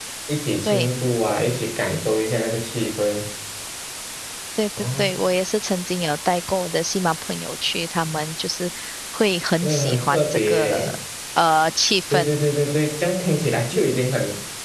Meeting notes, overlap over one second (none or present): present